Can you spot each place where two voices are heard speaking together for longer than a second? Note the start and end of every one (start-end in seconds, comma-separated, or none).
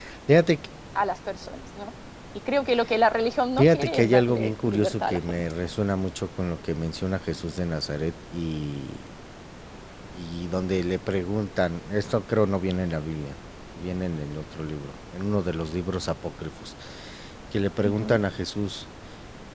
3.5-5.5